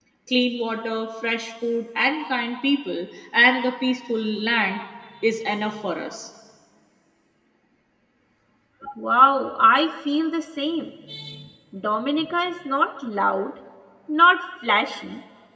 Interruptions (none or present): none